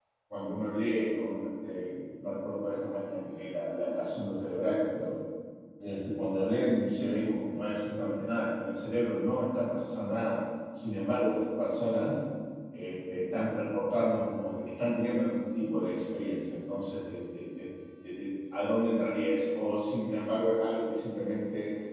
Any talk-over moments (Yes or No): No